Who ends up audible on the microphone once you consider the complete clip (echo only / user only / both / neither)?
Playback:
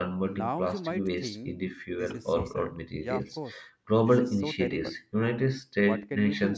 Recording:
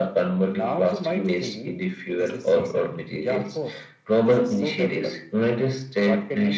echo only